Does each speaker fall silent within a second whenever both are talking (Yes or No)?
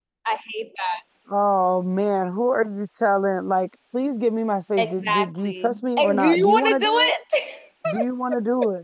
No